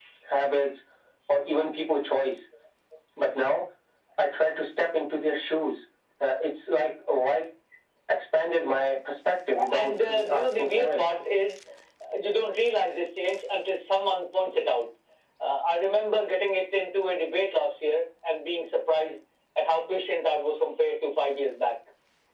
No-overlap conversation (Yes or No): No